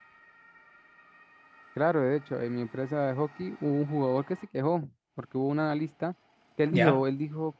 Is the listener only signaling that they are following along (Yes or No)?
Yes